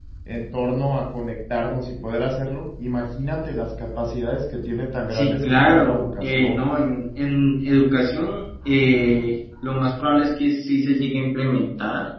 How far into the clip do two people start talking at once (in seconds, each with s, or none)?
5.1 s